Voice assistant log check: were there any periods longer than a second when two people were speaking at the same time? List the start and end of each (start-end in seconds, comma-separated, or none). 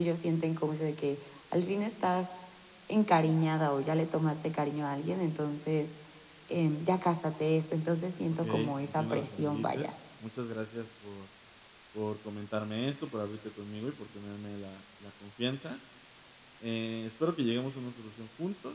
8.4-9.9